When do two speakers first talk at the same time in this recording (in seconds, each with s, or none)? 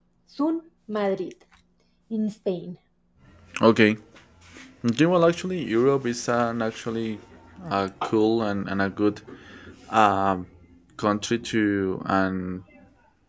none